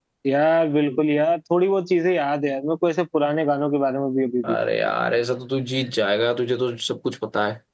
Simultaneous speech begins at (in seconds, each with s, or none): none